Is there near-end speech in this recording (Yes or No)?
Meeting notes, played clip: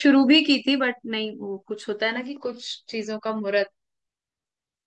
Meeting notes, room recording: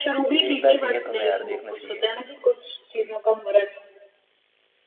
Yes